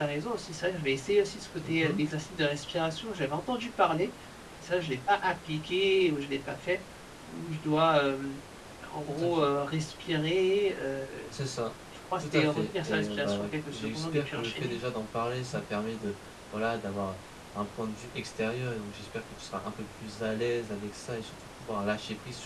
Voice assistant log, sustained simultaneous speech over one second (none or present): present